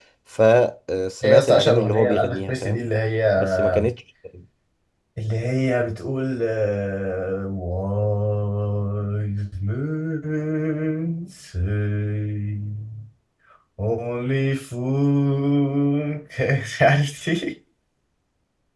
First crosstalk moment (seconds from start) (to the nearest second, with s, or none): 1 s